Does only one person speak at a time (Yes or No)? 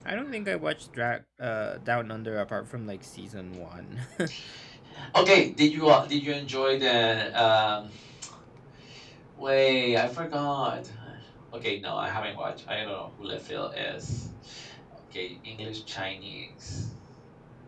Yes